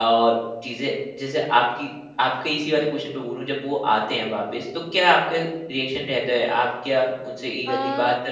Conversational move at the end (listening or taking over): listening